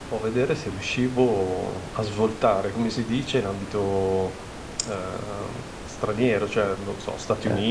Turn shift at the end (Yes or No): No